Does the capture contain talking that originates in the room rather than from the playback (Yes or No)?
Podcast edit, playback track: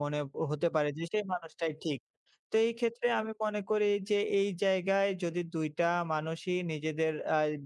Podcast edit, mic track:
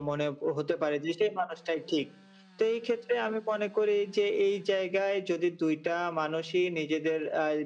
No